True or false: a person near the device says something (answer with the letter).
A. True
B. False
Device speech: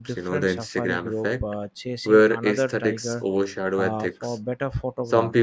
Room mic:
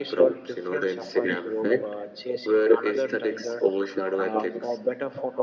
B